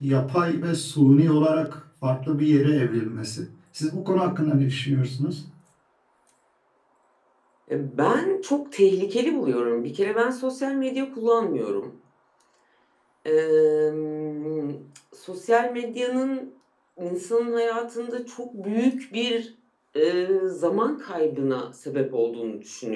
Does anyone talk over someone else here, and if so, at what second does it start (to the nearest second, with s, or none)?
none